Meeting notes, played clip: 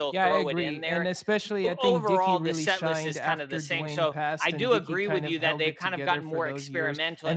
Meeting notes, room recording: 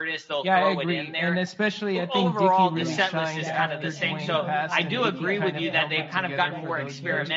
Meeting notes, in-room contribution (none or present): present